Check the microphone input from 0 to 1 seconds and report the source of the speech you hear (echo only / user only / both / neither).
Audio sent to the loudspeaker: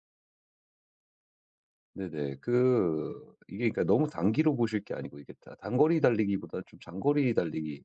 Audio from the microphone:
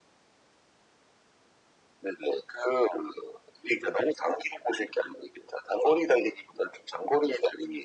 neither